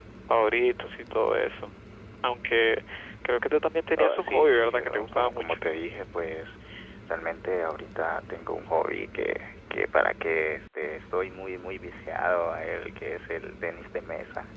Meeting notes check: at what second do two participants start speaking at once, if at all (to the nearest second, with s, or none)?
4 s